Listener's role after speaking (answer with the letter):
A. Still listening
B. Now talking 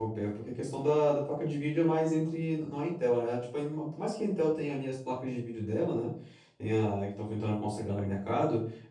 A